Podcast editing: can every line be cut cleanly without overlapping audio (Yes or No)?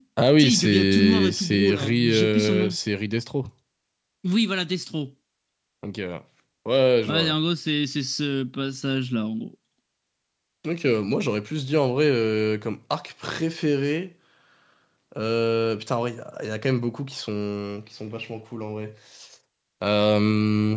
No